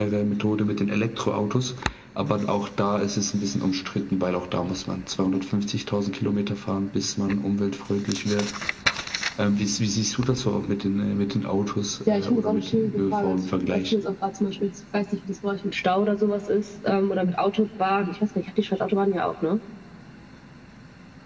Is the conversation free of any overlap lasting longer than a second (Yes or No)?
No